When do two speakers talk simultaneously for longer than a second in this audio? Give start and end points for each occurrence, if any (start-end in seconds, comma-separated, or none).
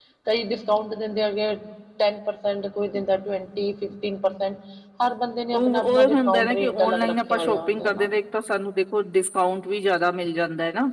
5.5-8.1